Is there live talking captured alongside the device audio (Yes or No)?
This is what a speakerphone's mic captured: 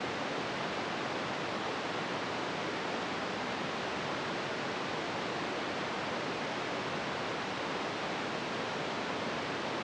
No